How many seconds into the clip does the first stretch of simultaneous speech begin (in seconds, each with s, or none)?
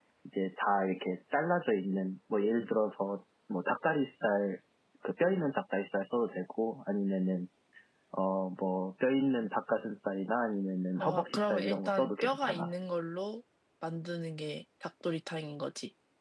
11.0 s